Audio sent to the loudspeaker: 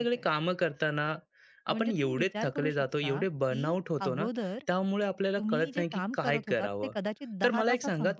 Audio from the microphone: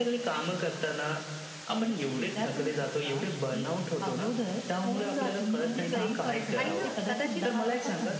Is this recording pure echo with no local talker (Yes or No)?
No